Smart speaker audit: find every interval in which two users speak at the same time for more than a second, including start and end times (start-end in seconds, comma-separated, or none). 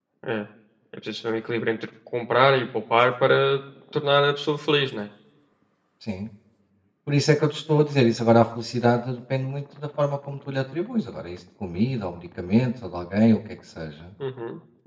none